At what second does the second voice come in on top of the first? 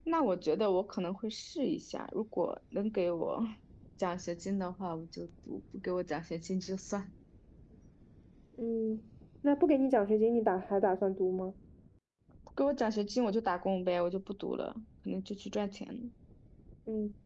none

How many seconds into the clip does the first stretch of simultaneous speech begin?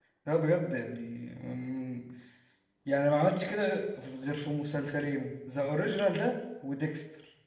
none

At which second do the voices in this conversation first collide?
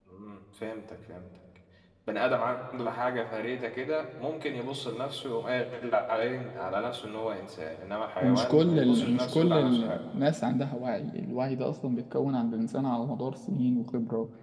8.2 s

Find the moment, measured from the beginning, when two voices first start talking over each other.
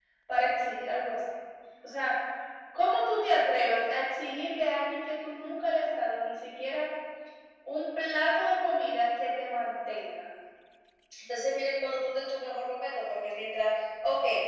none

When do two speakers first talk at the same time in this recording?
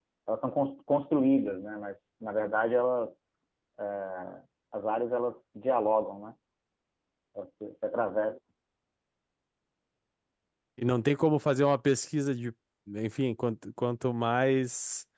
none

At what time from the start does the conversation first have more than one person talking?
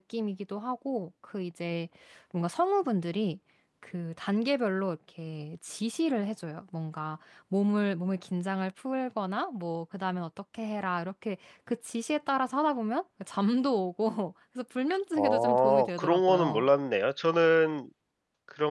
15.2 s

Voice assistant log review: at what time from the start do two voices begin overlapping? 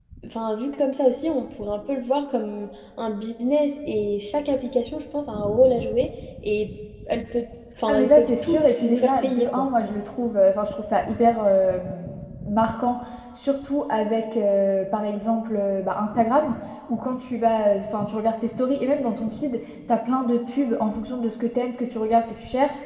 7.9 s

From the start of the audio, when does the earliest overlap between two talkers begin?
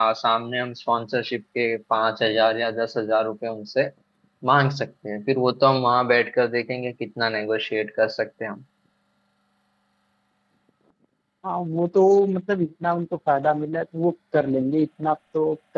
none

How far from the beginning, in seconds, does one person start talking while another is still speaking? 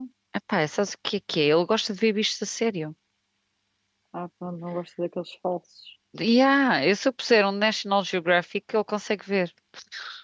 none

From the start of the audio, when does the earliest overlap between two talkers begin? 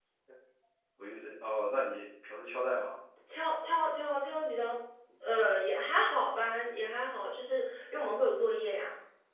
none

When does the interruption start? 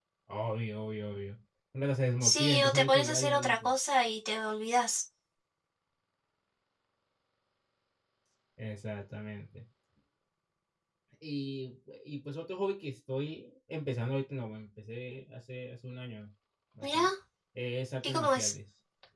2.2 s

